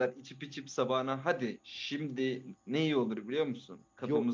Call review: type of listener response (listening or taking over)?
taking over